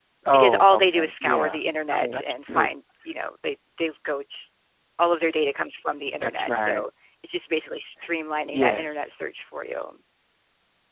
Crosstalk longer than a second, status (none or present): present